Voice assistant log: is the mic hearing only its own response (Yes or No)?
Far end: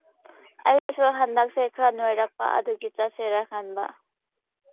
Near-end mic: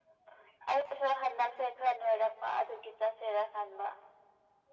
Yes